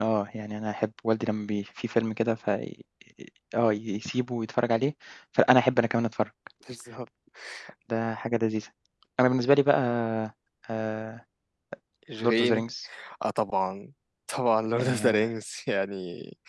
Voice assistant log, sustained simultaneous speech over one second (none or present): none